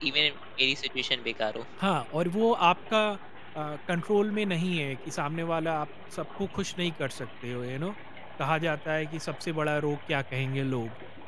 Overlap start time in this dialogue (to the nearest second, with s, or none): none